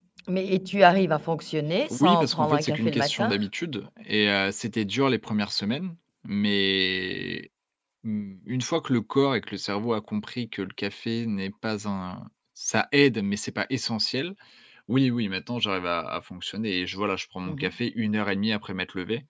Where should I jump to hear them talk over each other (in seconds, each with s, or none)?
1.9 s